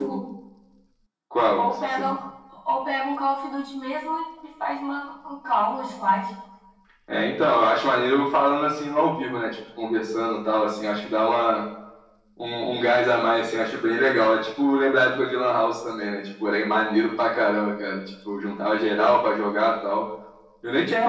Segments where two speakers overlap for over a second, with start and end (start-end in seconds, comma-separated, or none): none